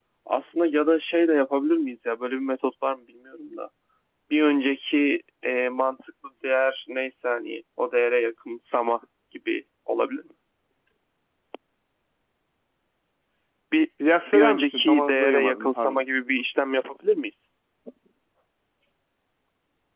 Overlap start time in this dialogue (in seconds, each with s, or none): 14.3 s